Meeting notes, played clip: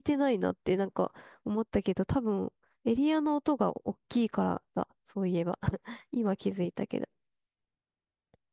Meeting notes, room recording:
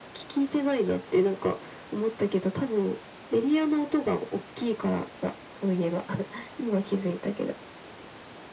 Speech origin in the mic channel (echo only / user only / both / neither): echo only